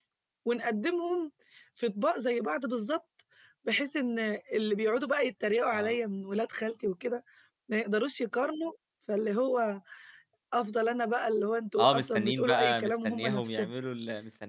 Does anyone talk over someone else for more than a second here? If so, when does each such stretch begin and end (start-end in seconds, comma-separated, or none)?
11.8-13.7